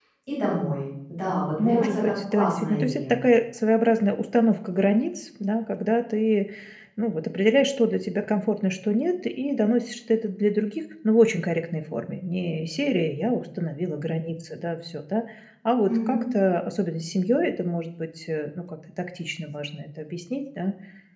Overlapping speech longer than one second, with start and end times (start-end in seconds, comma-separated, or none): 1.6-3.2